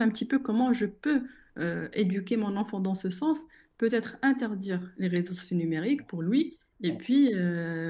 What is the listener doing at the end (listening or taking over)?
listening